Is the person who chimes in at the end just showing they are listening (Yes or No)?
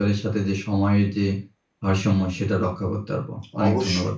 No